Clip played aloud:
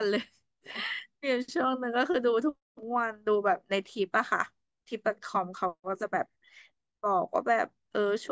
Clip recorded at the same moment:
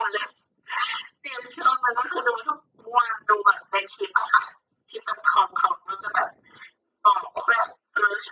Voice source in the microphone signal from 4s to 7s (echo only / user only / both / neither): echo only